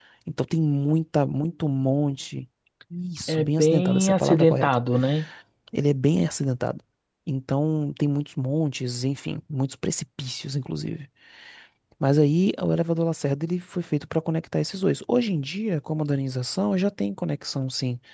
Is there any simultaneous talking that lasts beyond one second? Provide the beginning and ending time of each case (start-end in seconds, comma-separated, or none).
3.3-4.8